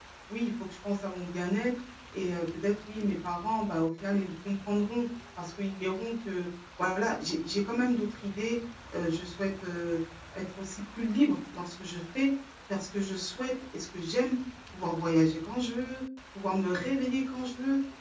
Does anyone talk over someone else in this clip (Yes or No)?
No